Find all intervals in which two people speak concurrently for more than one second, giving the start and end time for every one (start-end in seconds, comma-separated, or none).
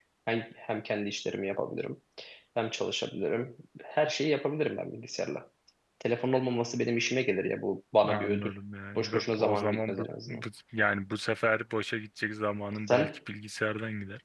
9.0-10.4